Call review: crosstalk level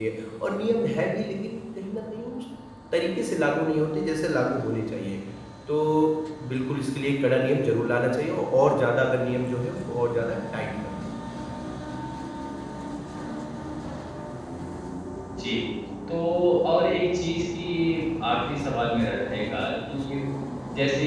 none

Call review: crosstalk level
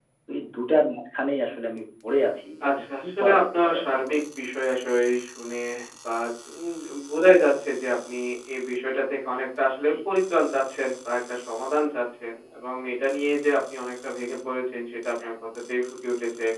present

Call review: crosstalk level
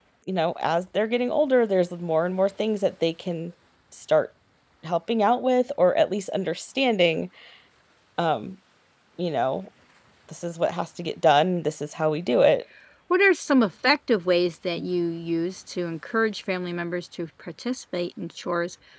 none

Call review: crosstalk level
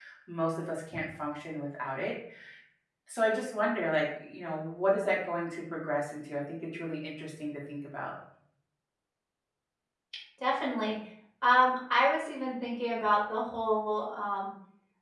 none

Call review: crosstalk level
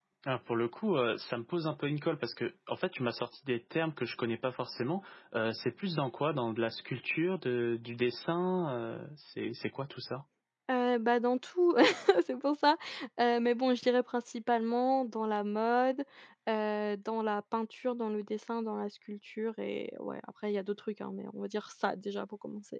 none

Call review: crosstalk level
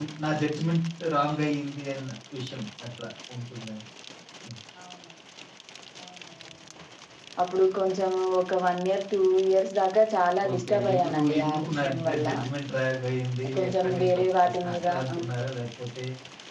present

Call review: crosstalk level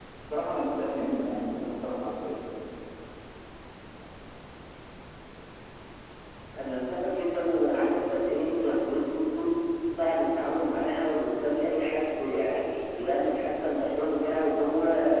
none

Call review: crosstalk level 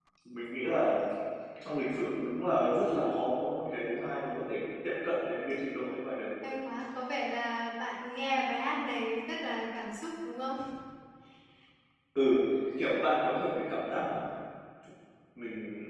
none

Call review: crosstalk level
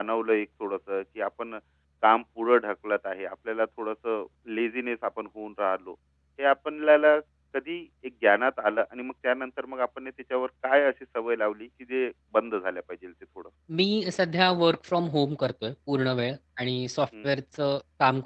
none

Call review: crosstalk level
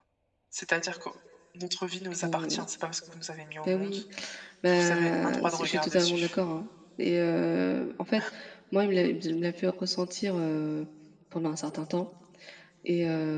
present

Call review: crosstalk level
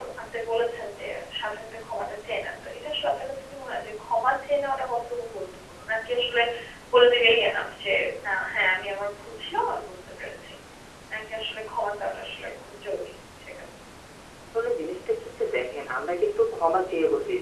none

